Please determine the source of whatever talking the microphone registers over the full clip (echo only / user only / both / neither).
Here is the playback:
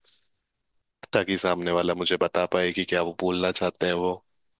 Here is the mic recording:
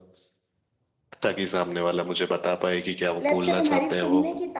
both